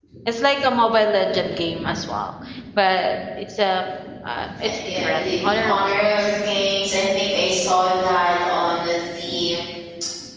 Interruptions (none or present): present